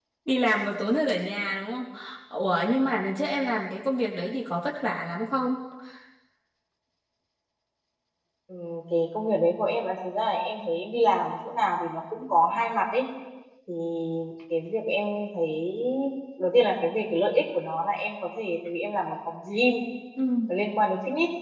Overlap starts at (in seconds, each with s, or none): none